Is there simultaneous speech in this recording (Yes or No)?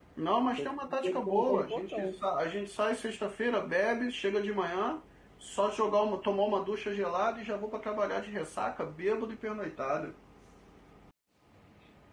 Yes